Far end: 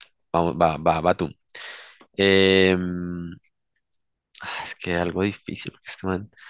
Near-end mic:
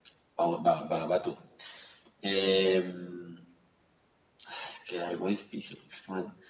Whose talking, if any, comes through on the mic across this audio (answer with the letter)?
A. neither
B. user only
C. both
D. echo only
D